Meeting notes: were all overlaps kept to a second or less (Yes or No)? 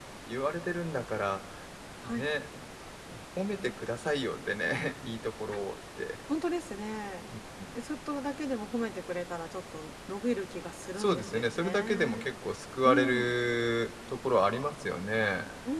No